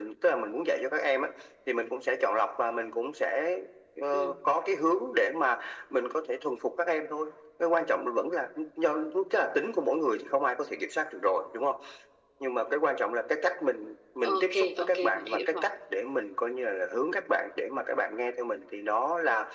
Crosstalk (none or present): present